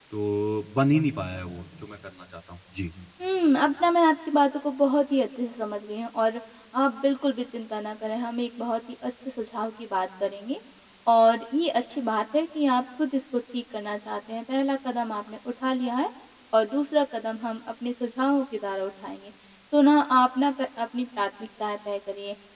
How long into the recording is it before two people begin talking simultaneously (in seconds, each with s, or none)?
none